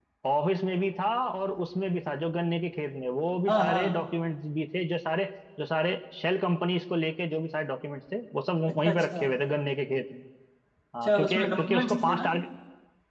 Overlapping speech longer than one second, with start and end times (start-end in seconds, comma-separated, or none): 11.0-12.3